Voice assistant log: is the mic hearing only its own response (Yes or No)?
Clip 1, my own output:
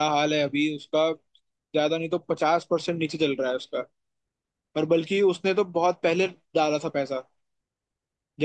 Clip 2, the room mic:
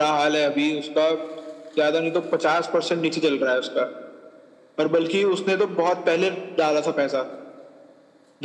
Yes